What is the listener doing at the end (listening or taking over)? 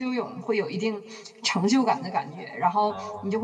listening